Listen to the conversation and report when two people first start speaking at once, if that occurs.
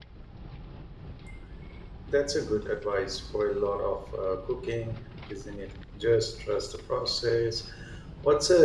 none

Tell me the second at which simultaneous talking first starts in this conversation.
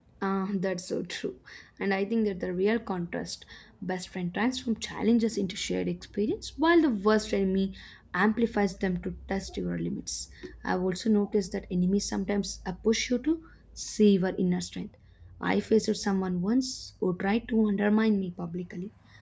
none

